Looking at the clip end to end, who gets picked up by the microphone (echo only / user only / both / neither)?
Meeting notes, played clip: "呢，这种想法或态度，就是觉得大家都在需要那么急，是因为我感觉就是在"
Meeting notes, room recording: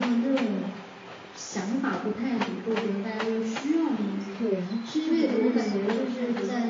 both